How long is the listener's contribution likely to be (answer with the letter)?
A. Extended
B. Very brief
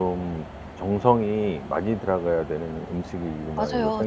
A